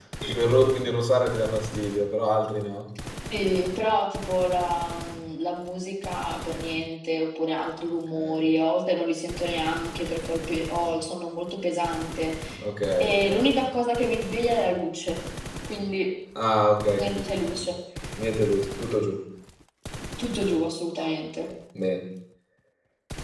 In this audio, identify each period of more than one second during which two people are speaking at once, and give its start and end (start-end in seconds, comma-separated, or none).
none